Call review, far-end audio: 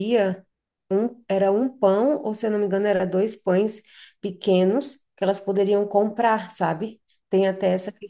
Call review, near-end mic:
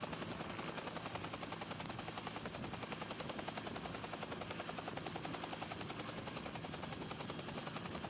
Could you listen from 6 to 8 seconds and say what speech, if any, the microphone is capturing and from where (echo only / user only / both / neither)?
neither